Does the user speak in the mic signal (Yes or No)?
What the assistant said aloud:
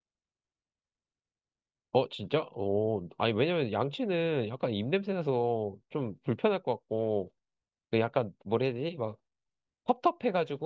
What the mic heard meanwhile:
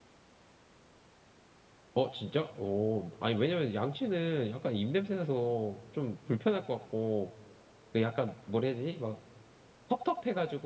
No